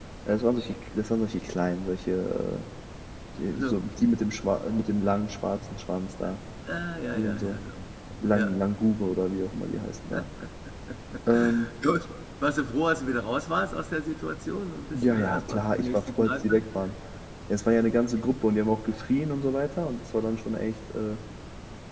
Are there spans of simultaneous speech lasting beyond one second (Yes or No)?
Yes